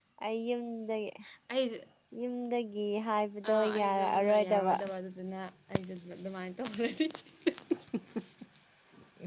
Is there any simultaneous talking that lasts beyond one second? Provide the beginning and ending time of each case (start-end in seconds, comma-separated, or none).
3.5-4.8